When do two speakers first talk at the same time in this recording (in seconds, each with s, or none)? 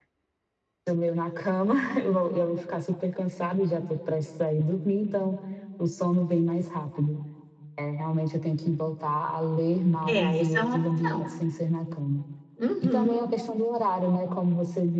10.1 s